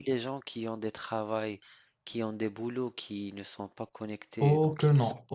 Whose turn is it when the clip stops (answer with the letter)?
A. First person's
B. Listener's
B